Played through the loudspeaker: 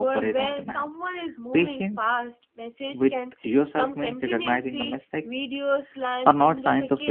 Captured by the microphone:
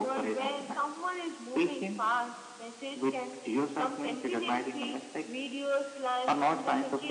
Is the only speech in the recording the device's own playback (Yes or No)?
Yes